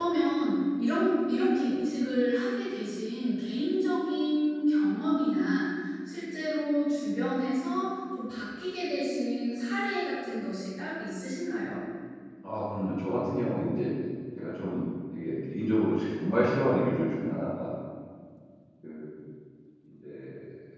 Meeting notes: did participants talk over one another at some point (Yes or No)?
No